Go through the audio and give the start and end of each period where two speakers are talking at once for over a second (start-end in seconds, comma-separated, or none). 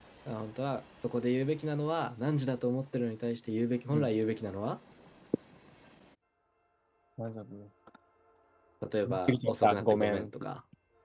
9.1-10.3